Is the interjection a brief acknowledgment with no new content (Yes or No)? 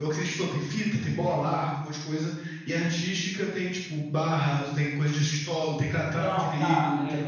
No